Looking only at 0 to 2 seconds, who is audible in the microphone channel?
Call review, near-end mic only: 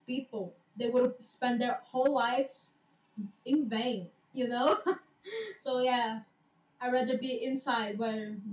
user only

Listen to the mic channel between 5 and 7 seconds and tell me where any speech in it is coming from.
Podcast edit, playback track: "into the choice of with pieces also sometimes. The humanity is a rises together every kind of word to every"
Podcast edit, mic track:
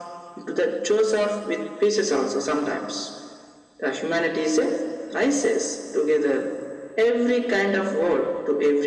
echo only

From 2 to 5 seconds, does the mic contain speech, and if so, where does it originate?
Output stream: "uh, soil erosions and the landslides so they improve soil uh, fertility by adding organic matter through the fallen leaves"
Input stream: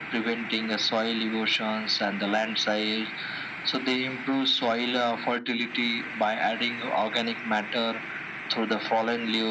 echo only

